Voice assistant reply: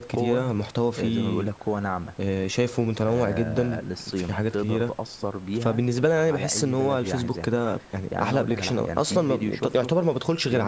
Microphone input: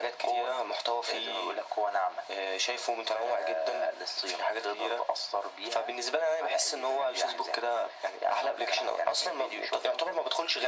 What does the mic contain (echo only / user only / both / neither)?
echo only